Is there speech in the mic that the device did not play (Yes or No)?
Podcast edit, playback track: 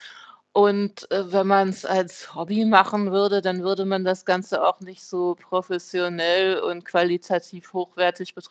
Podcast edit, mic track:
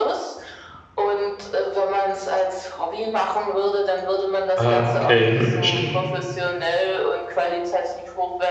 Yes